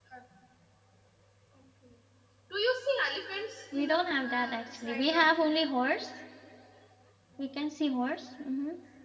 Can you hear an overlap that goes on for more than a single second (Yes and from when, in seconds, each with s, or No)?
Yes, from 3.7 s